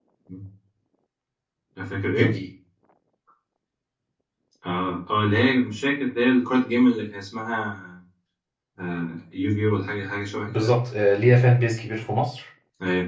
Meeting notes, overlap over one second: none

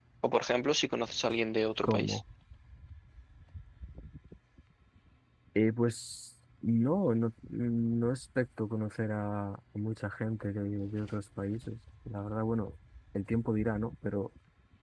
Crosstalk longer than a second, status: none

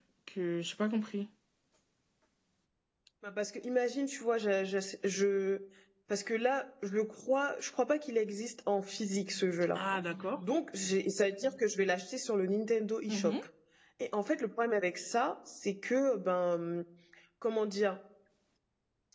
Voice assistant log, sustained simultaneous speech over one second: none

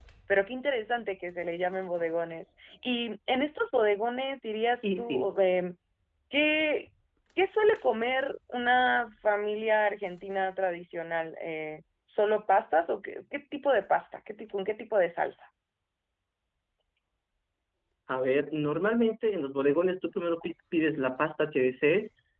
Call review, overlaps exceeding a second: none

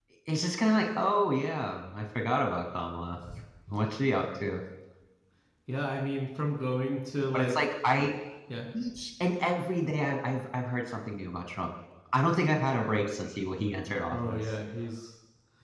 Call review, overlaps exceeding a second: none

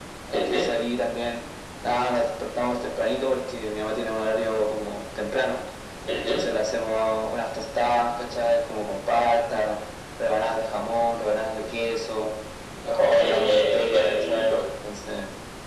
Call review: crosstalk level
present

